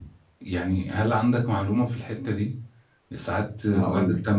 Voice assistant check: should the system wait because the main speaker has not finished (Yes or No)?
Yes